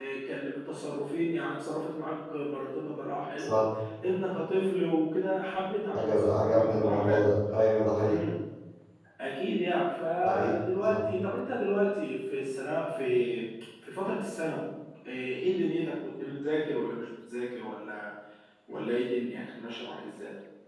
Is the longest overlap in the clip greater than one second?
Yes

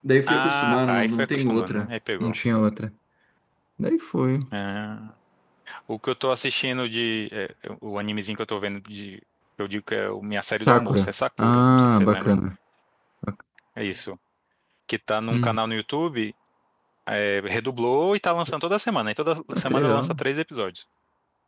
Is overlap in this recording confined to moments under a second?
No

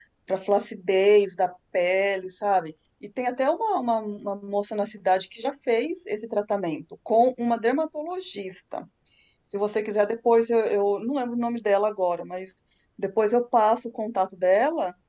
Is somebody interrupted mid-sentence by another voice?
No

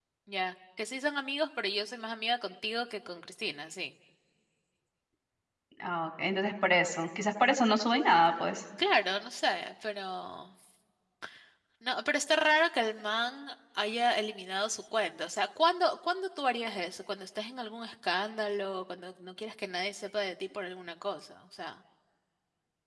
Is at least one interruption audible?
No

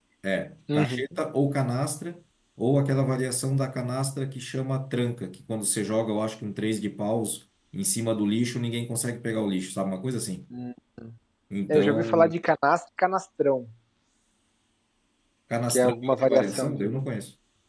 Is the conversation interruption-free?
No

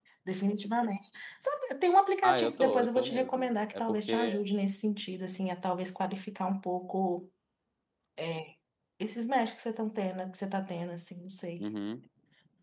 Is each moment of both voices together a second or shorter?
No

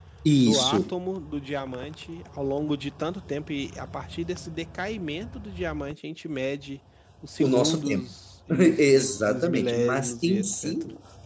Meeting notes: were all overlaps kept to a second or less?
No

